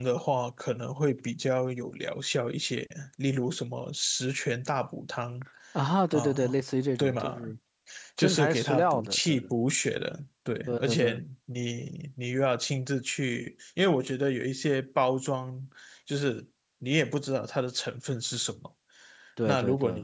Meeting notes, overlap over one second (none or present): present